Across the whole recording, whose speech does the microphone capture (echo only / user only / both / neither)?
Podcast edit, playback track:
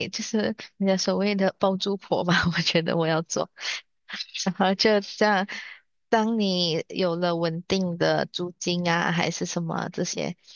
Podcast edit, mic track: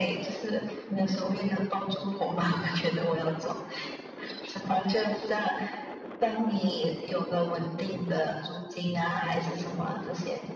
echo only